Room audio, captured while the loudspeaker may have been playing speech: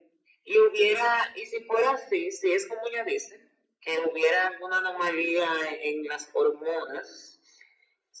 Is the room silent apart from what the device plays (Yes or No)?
Yes